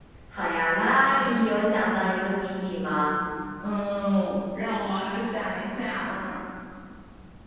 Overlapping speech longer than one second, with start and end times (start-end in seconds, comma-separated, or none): none